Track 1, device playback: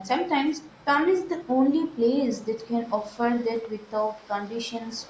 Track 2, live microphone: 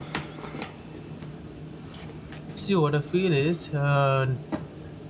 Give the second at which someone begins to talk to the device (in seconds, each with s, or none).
2.5 s